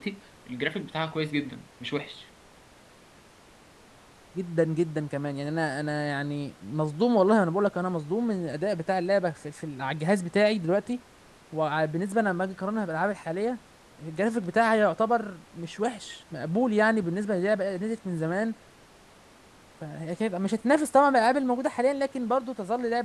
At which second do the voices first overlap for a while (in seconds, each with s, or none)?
none